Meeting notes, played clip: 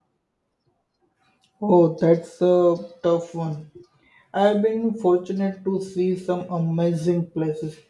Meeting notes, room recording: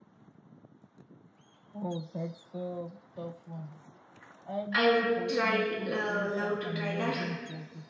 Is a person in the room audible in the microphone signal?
Yes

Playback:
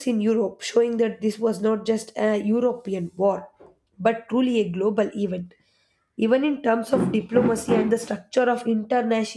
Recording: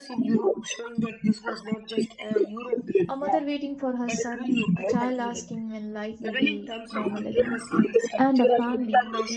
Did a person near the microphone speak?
Yes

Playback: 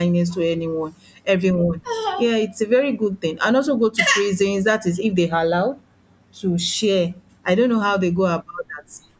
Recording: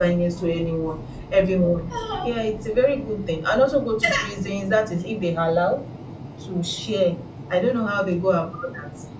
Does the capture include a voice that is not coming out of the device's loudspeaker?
No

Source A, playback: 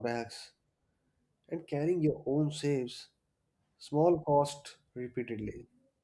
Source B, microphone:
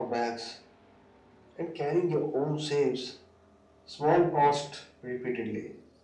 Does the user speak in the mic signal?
No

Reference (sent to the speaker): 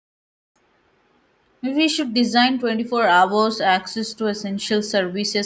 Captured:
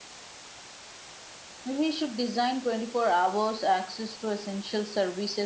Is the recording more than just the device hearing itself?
No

